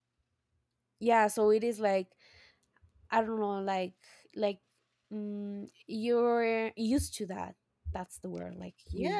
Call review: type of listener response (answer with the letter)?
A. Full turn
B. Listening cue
A